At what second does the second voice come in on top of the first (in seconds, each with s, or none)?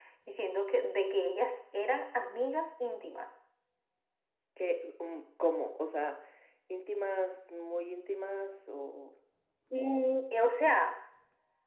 none